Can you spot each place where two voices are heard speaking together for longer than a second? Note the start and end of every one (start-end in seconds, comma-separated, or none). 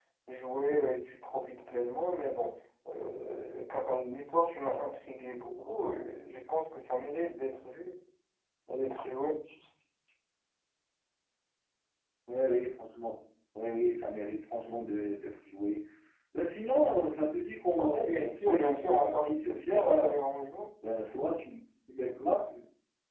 17.8-20.1